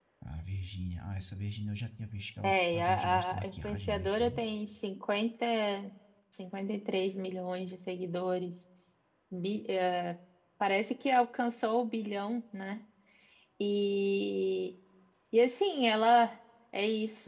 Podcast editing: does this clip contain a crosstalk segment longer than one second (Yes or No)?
Yes